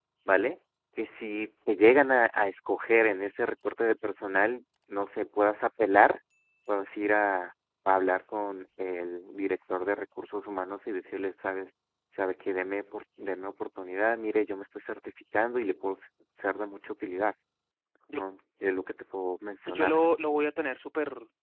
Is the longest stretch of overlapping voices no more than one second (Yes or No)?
Yes